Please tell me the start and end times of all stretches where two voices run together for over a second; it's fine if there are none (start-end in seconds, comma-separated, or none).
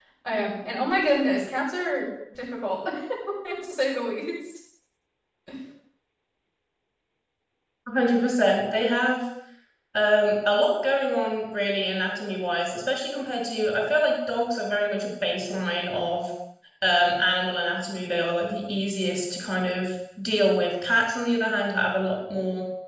none